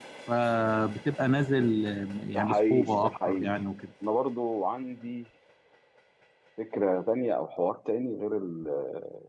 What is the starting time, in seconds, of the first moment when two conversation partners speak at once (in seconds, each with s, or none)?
2.3 s